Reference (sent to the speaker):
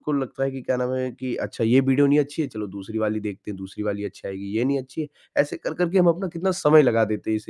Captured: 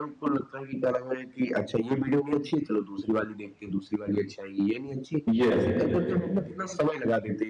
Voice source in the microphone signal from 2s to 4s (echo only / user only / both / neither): echo only